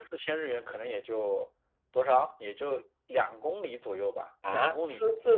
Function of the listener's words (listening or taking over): taking over